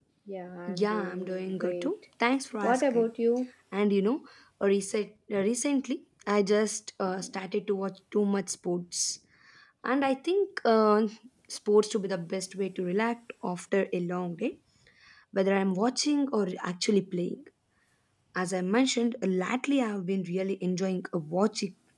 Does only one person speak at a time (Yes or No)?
No